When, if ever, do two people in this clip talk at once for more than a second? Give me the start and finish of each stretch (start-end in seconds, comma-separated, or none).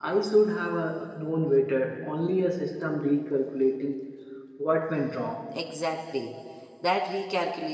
none